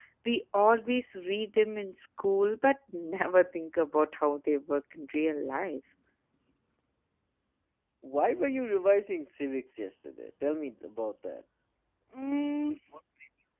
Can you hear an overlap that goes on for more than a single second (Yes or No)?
No